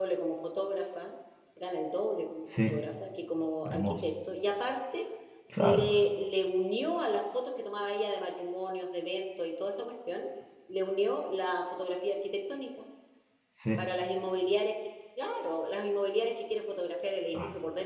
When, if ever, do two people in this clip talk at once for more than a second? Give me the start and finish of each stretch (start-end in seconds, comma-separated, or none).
none